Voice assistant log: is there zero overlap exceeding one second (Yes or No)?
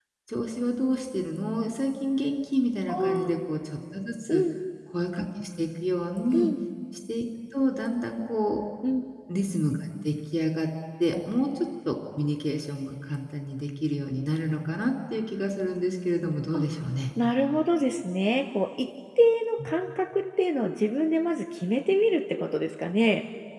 Yes